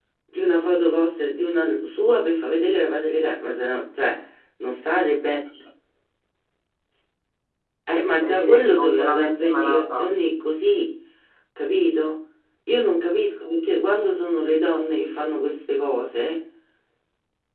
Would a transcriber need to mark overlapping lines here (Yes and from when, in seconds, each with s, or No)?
Yes, from 8.2 s